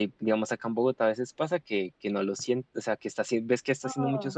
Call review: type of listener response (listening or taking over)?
listening